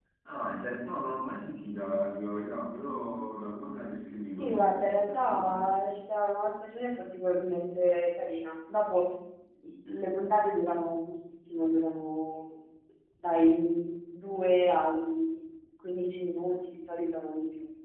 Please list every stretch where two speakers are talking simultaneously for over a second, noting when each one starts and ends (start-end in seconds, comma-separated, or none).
4.4-5.8